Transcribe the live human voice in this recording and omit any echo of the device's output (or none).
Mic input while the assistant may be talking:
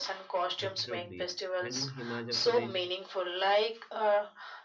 Absolutely. And in Himachal Pradesh,